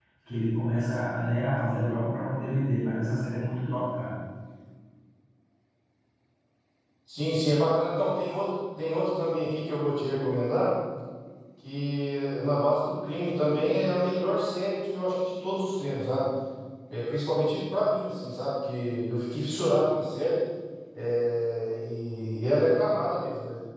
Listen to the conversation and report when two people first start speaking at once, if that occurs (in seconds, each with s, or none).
none